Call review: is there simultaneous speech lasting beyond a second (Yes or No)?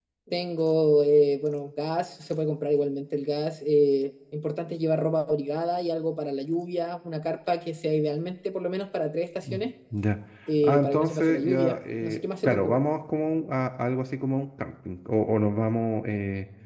Yes